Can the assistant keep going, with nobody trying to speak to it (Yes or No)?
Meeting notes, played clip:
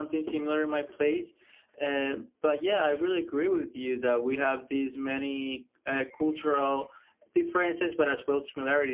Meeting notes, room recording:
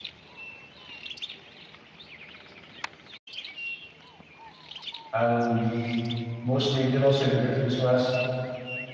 No